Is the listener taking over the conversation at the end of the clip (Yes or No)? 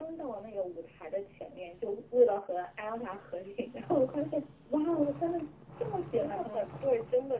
Yes